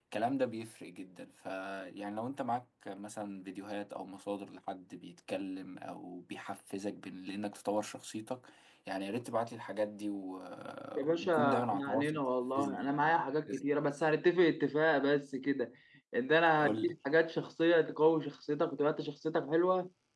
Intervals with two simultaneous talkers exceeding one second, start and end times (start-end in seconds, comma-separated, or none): 11.0-13.6